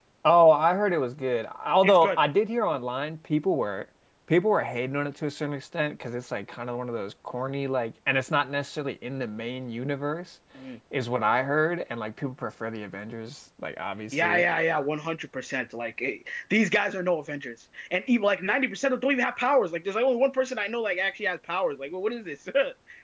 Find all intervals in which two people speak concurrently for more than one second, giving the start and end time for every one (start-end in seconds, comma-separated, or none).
none